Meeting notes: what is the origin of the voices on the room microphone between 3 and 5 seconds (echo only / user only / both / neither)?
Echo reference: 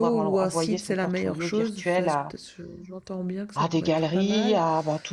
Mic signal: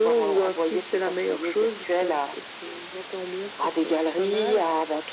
echo only